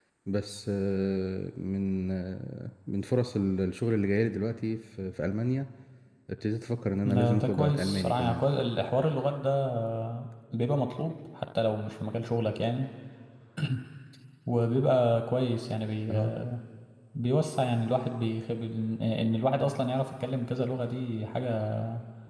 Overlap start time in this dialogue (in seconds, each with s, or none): 7.0 s